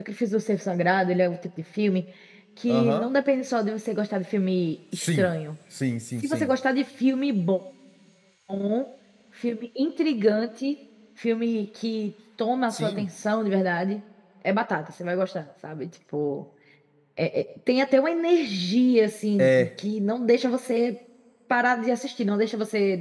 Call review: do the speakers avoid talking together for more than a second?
Yes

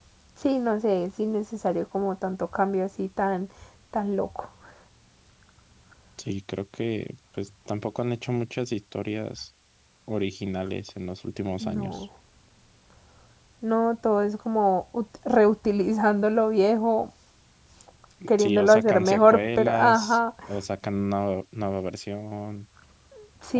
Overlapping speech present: Yes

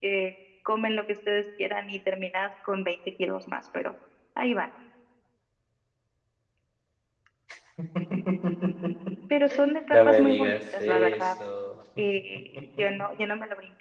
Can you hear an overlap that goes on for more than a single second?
Yes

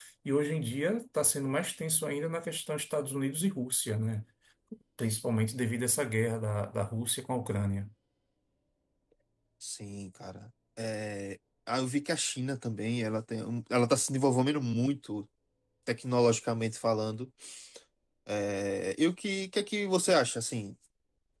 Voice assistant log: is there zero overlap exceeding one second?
Yes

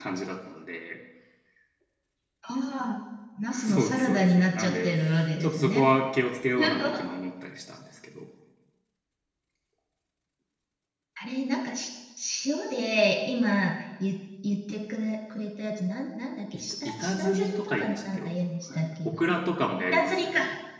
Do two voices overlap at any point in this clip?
Yes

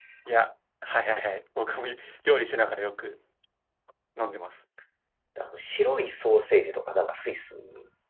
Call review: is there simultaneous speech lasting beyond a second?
No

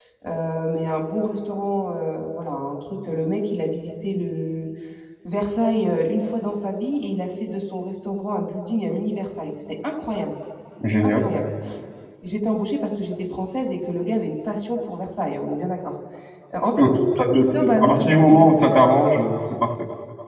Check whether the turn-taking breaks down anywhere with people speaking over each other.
Yes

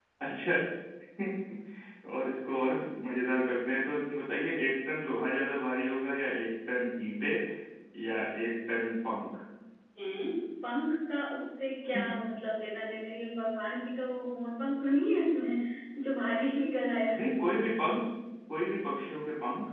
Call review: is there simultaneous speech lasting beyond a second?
No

